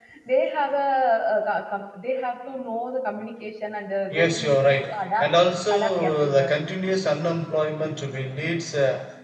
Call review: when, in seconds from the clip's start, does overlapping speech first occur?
4.1 s

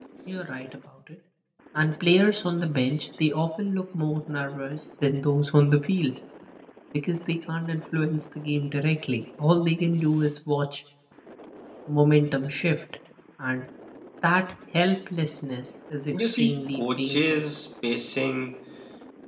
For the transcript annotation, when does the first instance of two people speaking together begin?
16.1 s

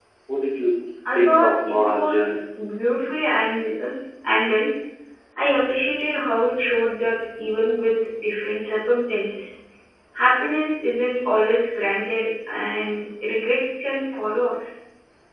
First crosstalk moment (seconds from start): 1.1 s

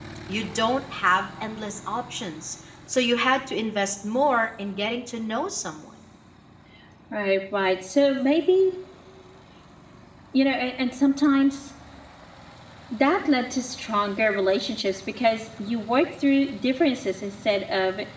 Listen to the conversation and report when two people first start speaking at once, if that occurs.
none

